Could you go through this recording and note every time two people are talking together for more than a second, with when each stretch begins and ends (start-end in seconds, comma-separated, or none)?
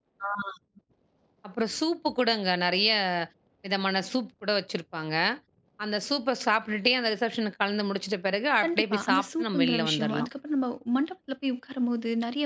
8.6-10.3